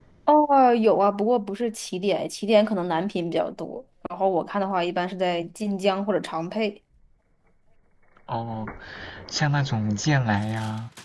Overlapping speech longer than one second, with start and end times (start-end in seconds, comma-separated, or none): none